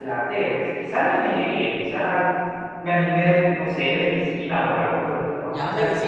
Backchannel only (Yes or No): No